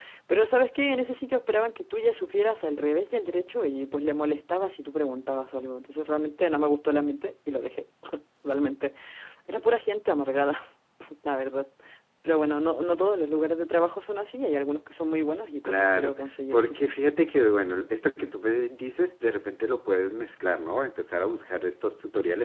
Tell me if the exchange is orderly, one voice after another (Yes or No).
No